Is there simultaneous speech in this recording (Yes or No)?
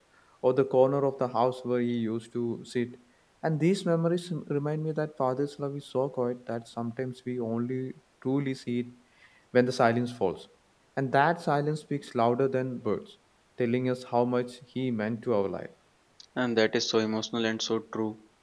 No